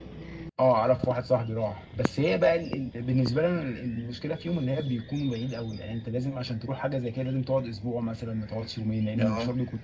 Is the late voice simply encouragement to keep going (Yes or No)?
No